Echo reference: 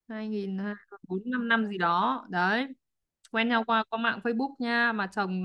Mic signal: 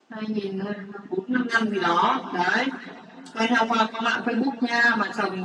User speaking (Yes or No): No